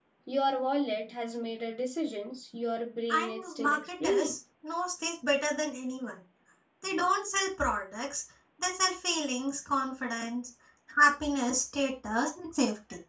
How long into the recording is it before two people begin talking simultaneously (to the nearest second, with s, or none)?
3 s